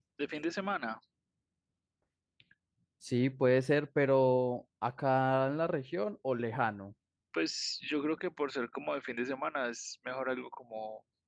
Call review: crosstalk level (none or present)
none